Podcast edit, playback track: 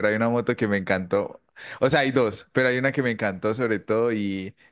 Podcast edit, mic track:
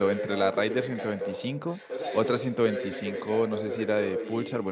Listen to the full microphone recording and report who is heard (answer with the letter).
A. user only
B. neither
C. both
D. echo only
C